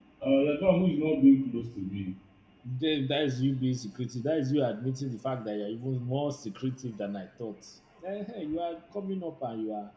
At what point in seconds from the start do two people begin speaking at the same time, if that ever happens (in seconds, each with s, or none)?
none